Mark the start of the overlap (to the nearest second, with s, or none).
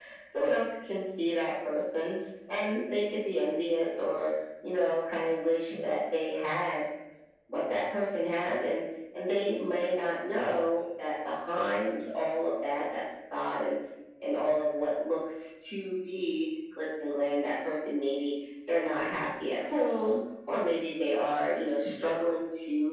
none